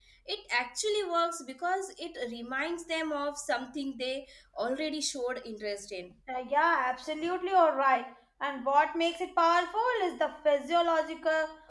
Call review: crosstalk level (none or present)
none